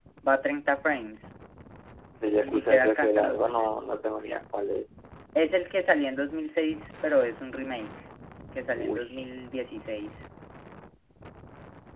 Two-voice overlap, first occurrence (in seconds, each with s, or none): 2.4 s